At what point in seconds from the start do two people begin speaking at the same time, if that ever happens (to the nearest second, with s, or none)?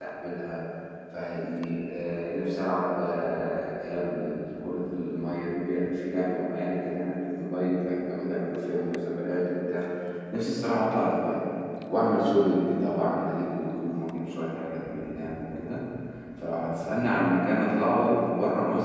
none